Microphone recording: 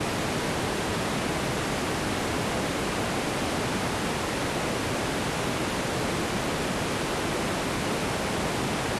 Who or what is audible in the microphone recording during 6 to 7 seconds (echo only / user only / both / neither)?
neither